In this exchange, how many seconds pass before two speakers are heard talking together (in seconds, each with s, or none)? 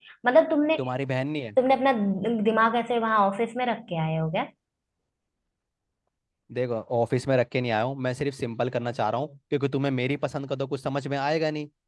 none